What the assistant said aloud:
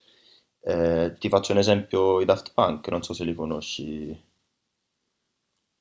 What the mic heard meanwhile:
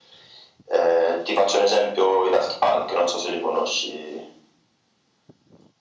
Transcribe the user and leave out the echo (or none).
none